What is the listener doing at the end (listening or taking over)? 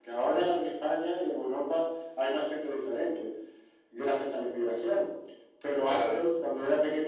listening